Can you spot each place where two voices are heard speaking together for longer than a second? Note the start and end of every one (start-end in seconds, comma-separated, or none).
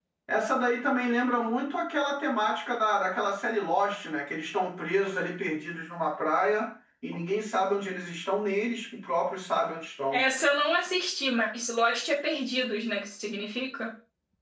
none